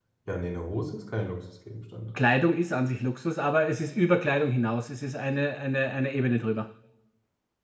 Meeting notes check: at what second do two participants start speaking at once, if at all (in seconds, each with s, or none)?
none